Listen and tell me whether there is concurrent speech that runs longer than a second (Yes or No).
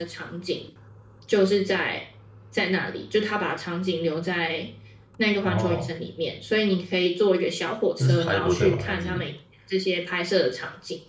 Yes